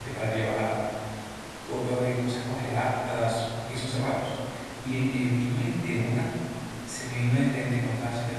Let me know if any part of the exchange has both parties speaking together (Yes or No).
No